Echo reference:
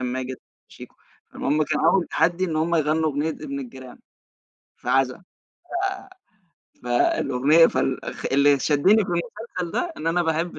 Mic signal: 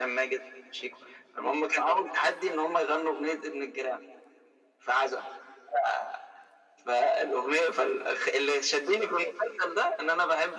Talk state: echo only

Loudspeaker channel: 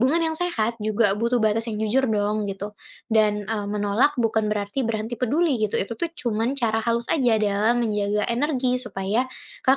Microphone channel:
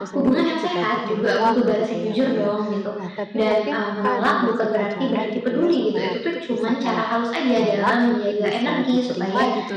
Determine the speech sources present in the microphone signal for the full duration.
both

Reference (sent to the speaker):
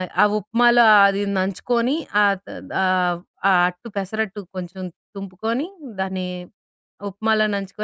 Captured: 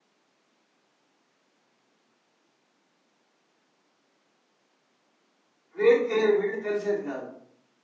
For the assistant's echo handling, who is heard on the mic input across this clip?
user only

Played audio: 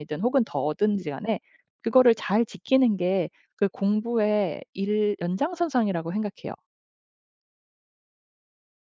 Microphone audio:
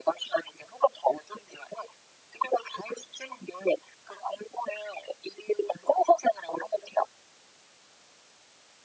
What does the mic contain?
echo only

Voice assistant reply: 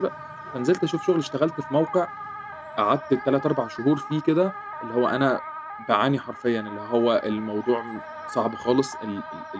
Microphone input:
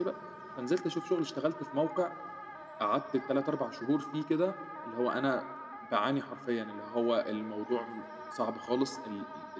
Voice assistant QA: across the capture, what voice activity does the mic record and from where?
echo only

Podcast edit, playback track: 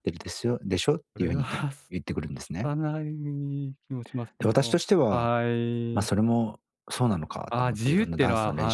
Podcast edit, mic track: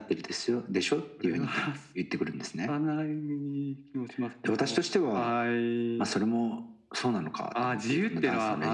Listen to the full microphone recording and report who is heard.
echo only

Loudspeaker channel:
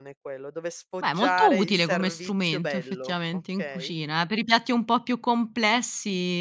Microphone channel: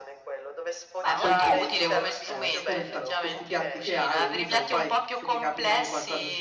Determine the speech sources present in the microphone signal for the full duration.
both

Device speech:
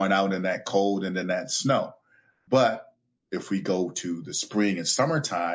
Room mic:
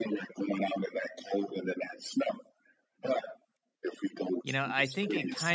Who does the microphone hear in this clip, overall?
both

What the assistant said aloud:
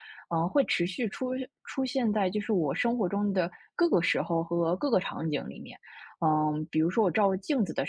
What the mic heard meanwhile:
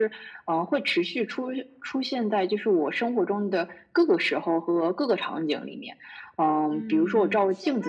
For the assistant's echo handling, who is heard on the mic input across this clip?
both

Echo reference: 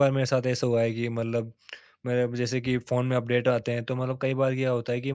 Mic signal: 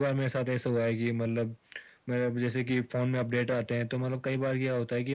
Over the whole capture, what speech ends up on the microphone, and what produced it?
echo only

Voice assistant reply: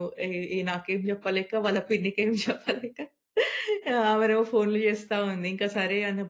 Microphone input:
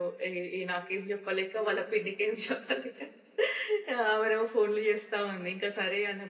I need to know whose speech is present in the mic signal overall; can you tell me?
echo only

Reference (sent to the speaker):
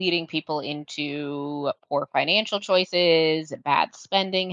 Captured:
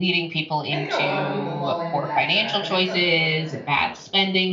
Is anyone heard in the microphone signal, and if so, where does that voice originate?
both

